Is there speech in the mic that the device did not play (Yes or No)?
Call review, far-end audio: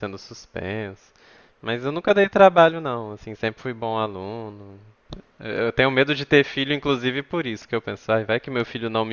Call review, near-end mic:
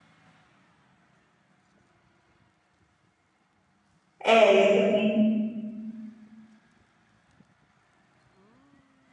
Yes